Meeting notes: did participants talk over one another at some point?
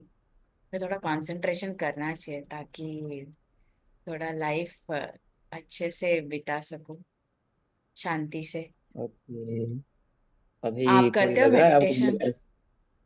Yes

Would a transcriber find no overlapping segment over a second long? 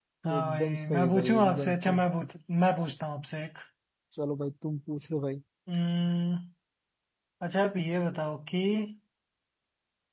No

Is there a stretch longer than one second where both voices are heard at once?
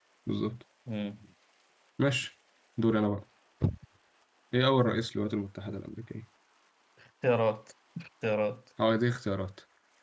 No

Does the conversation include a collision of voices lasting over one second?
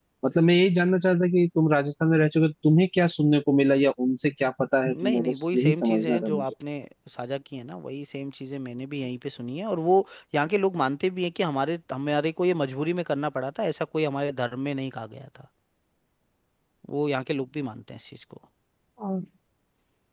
Yes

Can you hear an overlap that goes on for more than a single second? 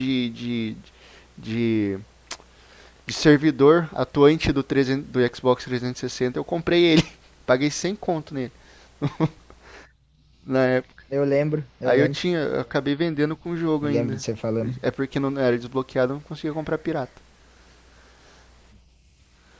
No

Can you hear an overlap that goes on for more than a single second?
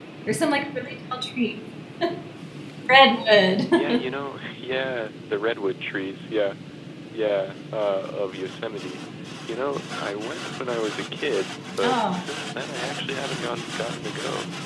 No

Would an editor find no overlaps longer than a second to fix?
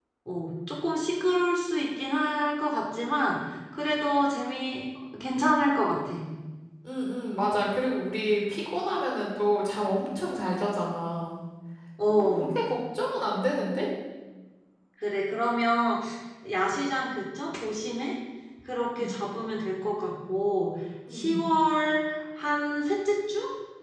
Yes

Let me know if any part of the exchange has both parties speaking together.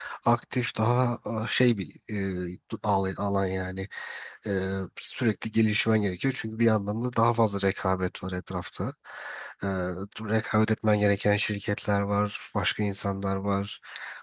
No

